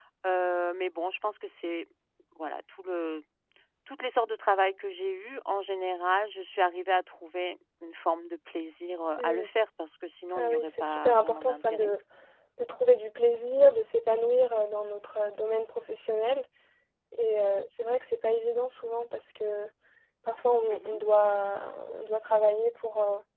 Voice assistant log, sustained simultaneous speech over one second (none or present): present